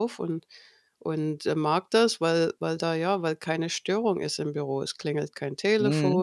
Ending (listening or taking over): listening